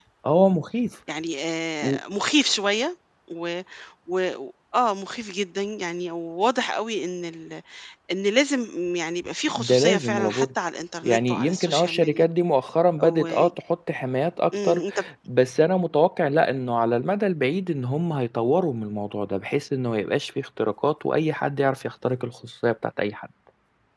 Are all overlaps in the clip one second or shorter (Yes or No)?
No